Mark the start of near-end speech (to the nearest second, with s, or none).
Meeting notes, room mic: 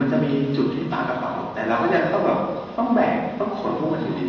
none